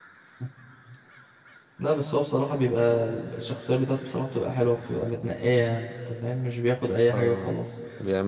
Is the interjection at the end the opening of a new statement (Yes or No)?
Yes